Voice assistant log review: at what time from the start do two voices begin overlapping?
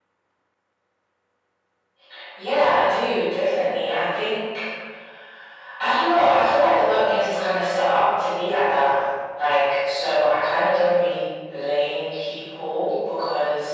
none

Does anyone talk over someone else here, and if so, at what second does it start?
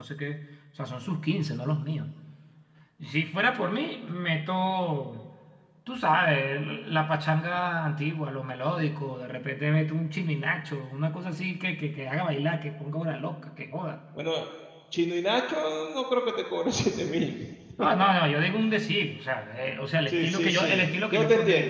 20.1 s

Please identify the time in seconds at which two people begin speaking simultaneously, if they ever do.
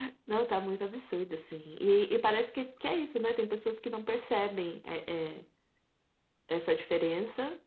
none

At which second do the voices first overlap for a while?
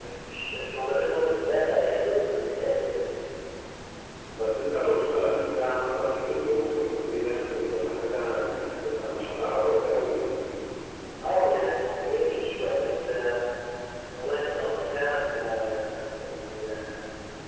none

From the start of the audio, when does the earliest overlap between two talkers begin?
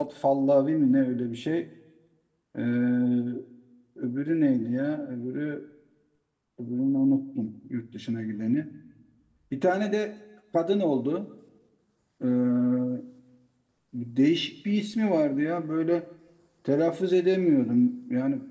none

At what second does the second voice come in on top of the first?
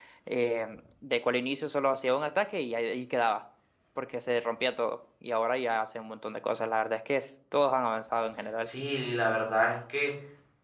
none

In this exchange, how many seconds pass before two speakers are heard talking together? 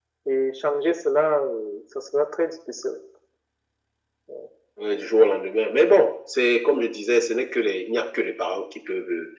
none

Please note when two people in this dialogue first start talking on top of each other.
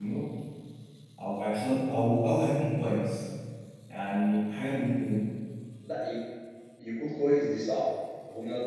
none

